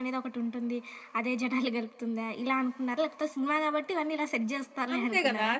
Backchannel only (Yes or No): No